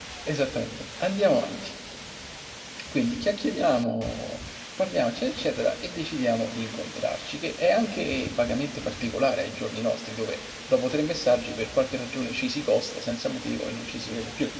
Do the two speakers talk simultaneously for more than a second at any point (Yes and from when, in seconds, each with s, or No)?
No